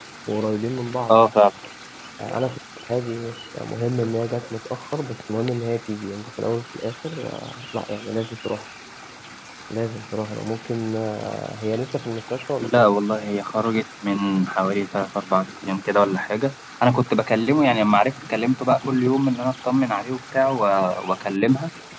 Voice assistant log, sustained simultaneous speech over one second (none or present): none